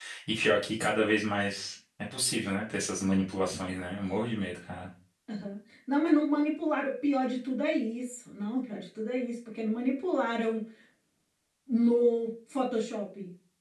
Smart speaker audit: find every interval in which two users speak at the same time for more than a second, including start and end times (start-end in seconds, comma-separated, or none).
none